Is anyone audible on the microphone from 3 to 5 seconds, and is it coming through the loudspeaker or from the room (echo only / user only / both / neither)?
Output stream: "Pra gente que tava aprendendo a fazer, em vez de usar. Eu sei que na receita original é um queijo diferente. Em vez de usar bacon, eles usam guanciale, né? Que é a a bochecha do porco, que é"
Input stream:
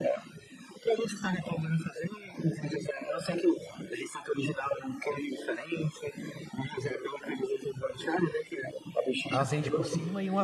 echo only